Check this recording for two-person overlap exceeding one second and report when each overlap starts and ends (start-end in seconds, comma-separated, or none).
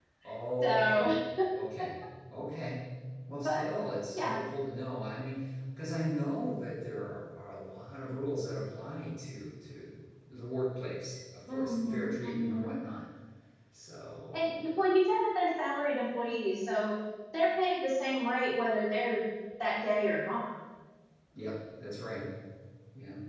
11.5-12.7